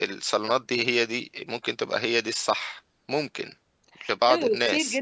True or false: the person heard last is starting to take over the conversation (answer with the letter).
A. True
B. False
A